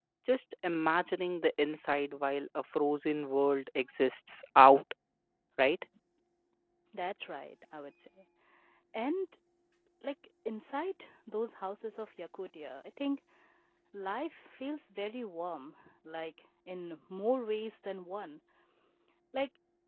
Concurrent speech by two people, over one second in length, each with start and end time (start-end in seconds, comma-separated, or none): none